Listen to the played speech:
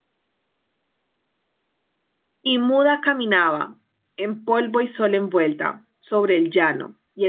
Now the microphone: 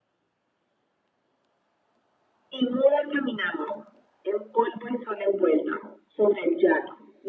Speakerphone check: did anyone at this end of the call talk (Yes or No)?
No